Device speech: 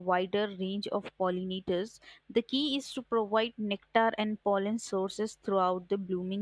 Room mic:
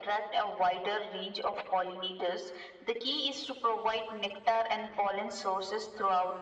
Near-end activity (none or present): none